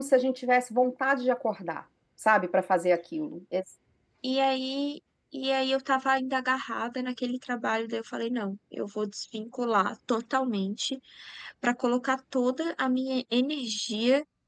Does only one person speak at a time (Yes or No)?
Yes